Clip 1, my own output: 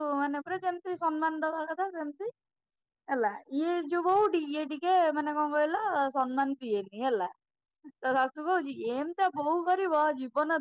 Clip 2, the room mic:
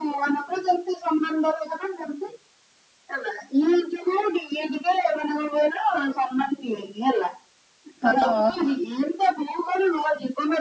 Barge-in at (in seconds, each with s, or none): 8.0 s